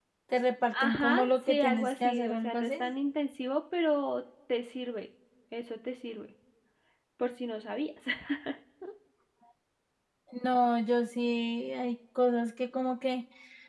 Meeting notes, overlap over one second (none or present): present